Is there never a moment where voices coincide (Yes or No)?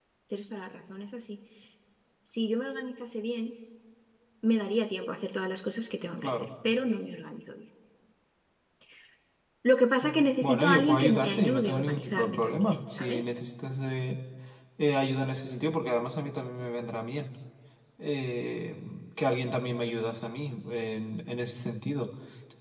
No